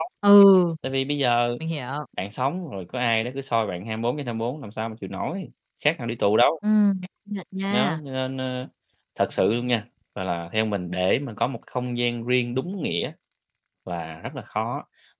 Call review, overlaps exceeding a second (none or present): none